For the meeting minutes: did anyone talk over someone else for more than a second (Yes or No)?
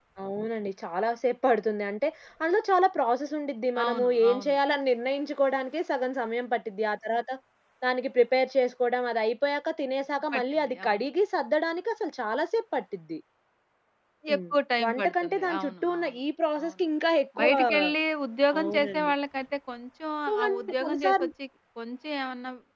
Yes